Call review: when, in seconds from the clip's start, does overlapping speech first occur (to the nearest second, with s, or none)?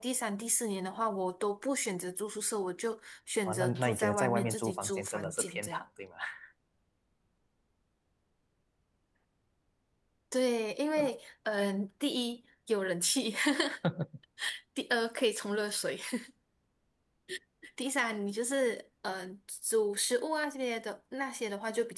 3 s